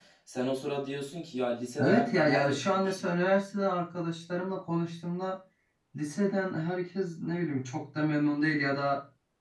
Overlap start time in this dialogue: 1.8 s

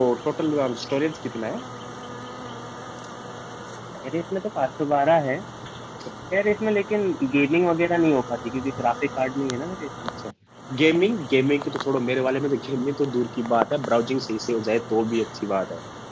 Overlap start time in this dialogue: none

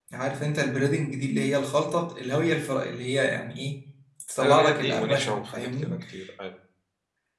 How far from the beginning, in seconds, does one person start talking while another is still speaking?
4.4 s

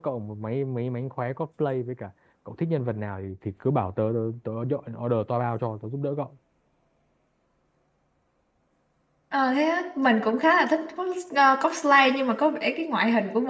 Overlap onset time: none

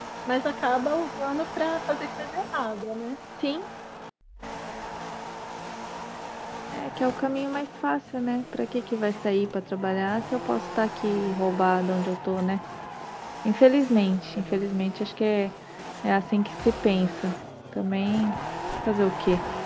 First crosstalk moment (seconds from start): none

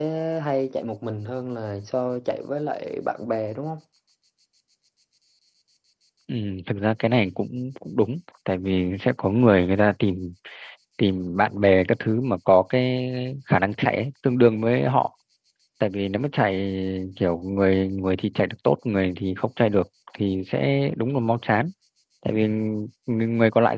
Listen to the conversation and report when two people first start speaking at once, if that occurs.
none

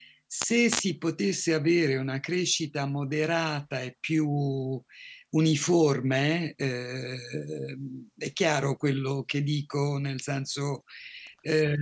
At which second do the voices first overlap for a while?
none

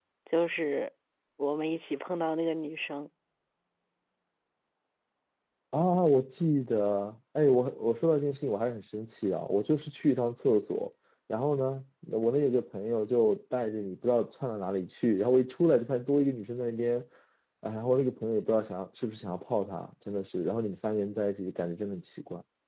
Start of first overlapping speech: none

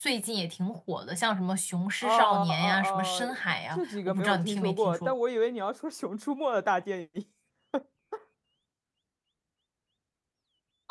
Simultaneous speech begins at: 2.0 s

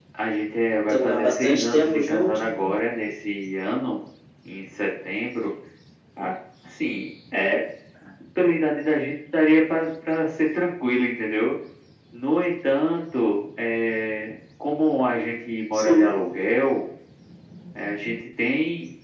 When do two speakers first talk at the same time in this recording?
0.9 s

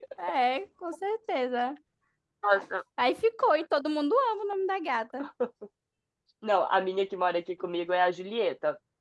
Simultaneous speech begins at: none

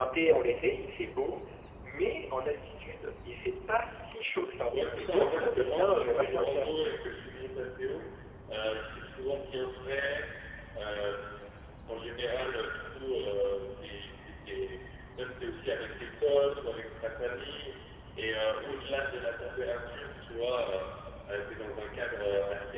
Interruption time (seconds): 4.7 s

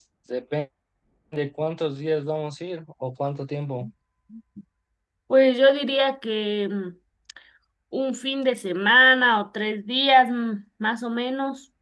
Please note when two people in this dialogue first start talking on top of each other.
none

